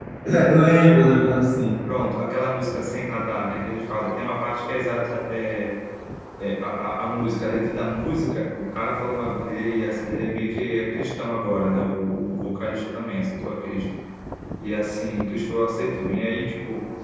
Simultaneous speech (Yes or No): No